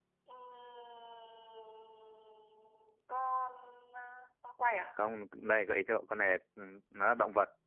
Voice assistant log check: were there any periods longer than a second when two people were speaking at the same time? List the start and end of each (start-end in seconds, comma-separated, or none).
none